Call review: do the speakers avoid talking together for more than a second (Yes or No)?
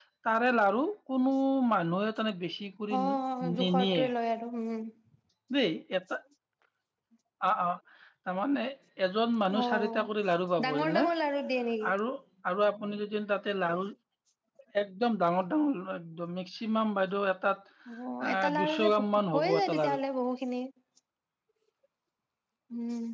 No